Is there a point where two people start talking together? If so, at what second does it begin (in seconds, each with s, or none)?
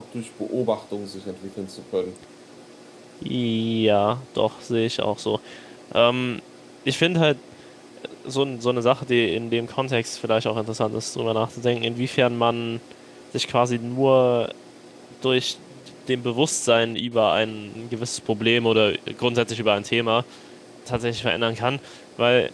none